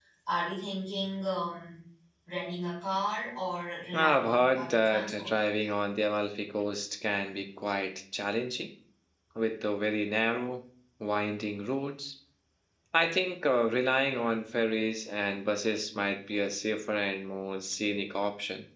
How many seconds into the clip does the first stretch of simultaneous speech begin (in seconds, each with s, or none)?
3.9 s